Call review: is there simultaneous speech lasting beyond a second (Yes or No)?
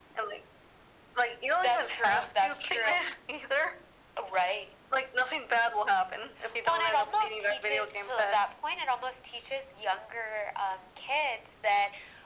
Yes